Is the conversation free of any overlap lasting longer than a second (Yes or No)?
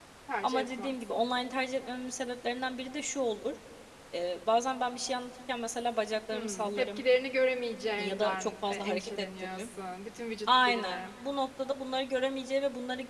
No